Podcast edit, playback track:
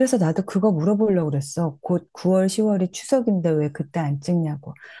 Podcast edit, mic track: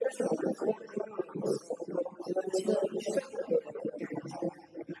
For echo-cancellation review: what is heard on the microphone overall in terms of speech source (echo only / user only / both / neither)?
echo only